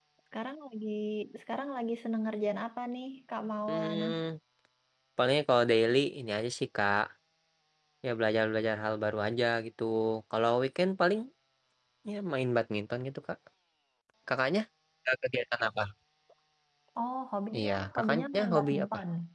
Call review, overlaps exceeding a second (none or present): present